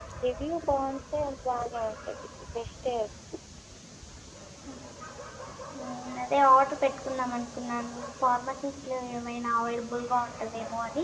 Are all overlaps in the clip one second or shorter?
Yes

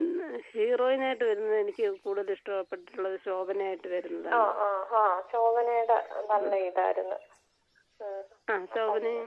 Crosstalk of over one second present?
No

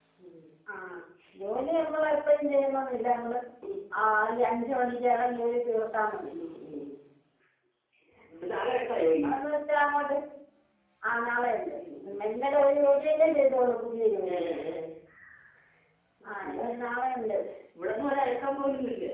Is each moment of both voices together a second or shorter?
Yes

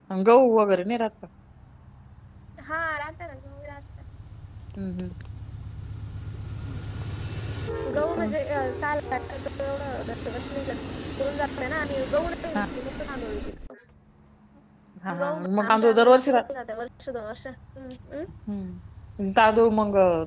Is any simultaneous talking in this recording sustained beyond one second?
Yes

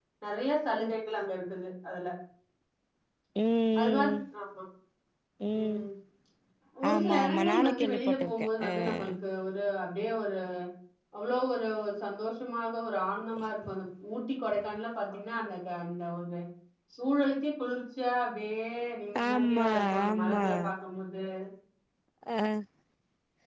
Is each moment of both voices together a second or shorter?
No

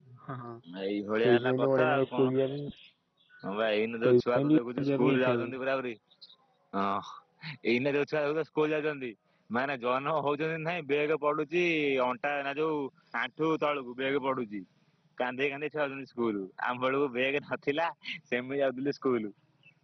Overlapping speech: Yes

